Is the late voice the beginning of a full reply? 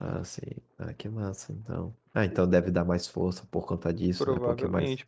Yes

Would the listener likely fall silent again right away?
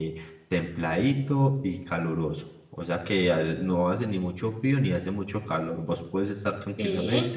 Yes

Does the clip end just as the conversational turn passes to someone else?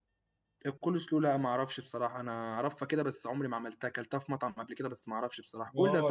Yes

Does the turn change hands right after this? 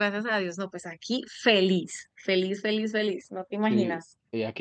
Yes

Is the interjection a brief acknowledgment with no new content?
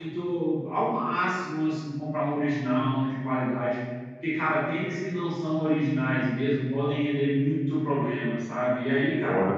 Yes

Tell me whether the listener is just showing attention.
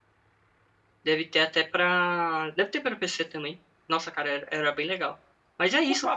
No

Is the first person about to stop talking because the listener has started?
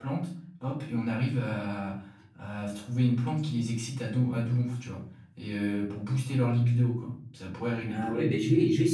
Yes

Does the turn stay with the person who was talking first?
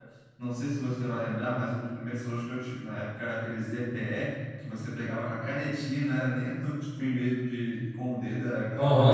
No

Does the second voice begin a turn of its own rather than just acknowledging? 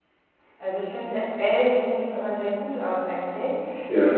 No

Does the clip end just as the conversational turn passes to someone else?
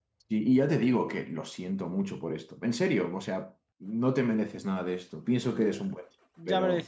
Yes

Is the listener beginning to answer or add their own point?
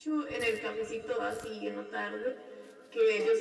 No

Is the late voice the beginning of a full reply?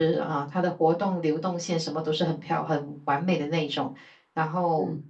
No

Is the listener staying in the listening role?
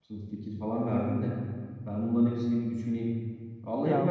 Yes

